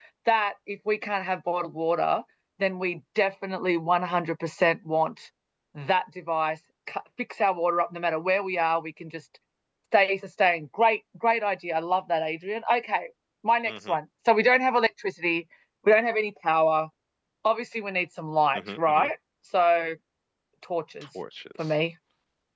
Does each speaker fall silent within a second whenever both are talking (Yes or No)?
Yes